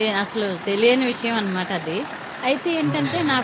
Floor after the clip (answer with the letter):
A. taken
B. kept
B